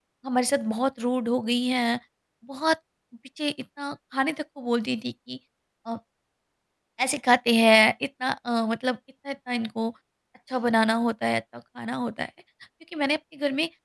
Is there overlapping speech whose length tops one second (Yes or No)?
No